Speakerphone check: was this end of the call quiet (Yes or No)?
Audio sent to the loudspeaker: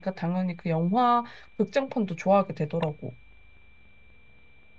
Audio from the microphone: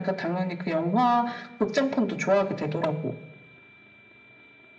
Yes